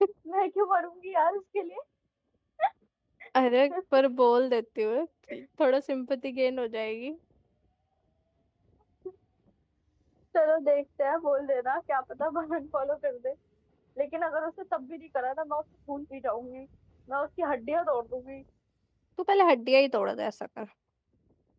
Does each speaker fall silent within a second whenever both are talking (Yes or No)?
Yes